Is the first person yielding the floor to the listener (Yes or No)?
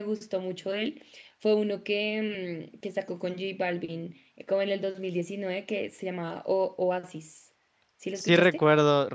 Yes